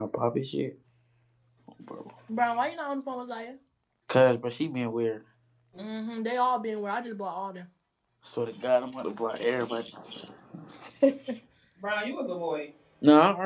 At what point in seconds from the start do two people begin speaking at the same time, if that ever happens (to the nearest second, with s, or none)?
none